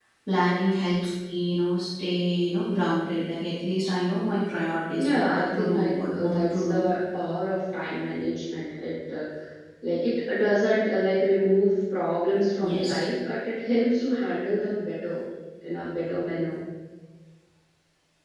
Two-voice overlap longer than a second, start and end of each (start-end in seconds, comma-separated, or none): 5.0-6.9